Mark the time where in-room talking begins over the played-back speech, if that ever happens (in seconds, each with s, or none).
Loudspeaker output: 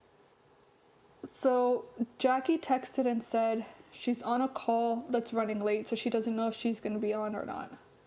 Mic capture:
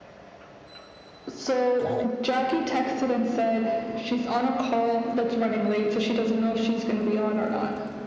1.8 s